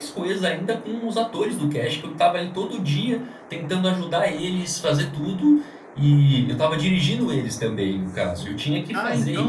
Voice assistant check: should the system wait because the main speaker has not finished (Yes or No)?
No